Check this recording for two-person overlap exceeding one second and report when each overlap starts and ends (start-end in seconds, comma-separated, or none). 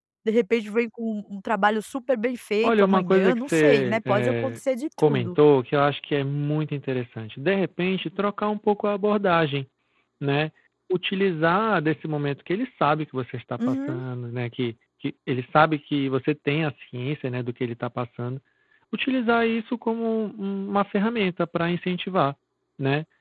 2.6-4.6